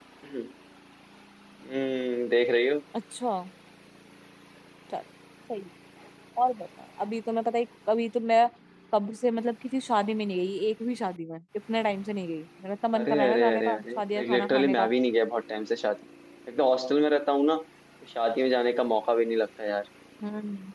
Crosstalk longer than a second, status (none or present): present